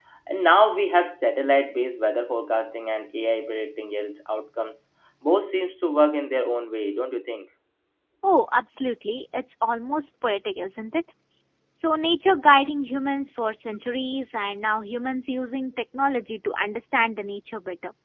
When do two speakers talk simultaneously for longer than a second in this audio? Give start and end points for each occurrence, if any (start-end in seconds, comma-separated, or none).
none